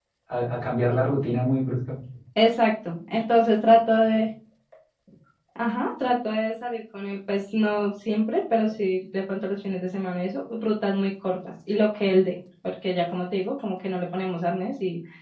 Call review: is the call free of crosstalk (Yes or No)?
Yes